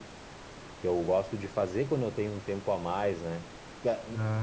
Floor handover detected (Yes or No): No